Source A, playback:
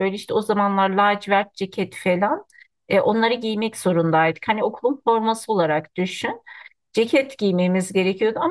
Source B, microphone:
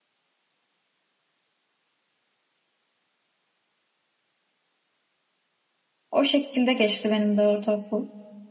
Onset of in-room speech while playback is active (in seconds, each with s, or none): 6.1 s